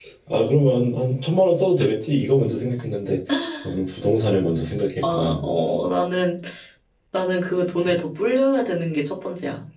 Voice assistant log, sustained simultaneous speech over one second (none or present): none